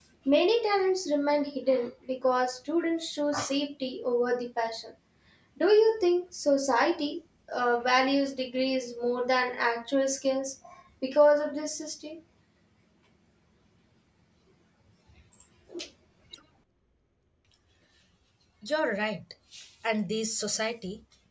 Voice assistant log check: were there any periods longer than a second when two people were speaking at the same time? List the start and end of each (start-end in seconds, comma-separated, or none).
none